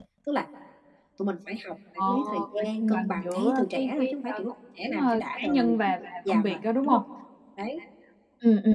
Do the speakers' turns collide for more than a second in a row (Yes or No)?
Yes